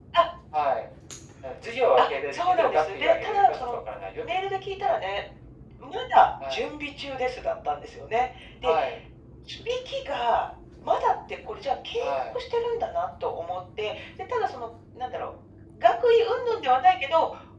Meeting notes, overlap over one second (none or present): present